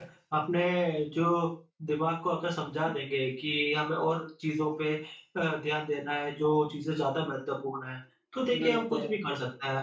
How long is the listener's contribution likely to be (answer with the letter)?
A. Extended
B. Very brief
B